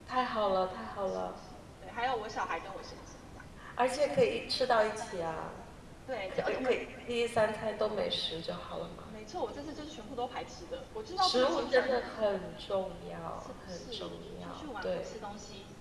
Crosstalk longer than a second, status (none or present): present